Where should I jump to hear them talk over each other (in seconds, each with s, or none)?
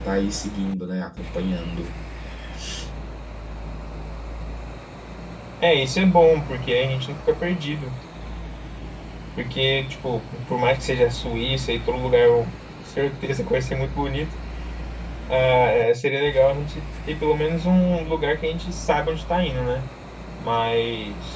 none